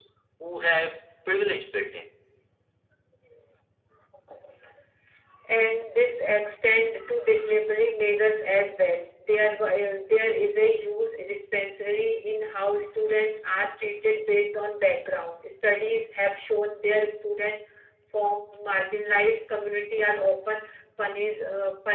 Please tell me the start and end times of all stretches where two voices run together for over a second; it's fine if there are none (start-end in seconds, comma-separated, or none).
none